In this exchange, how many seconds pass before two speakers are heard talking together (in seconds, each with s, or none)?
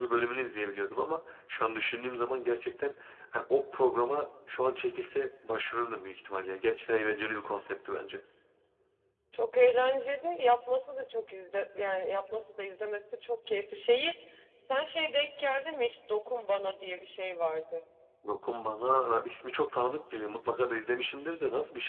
none